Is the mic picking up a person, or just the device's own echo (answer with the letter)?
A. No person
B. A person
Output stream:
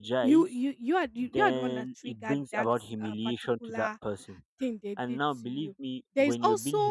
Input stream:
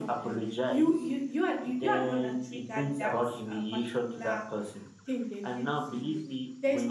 A